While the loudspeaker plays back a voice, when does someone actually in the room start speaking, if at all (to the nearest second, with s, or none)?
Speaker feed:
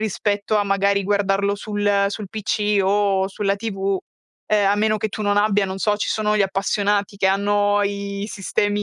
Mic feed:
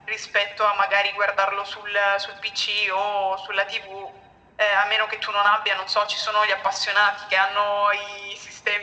none